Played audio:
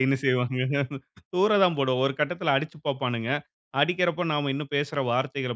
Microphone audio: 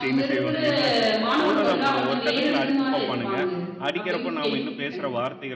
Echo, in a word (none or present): present